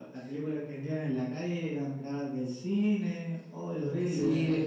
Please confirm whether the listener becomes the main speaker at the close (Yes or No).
Yes